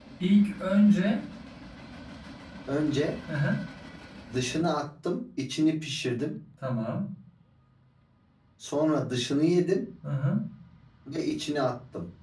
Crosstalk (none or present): none